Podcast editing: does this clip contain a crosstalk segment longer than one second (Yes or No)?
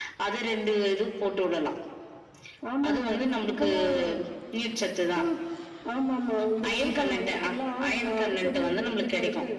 Yes